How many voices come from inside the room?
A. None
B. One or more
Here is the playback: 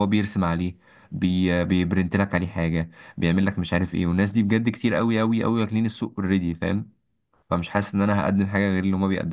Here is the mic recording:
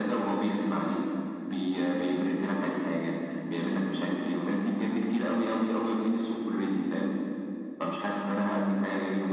A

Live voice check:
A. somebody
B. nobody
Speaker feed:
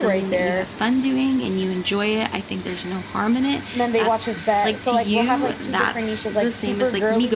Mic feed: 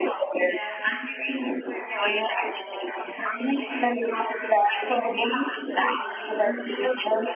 A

